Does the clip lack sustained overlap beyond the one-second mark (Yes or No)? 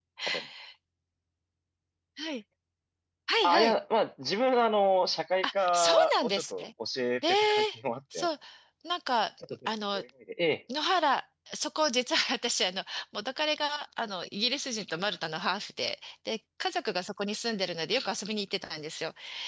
No